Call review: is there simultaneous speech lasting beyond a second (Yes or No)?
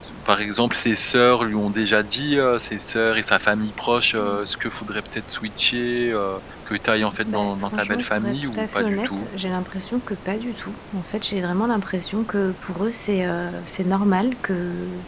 Yes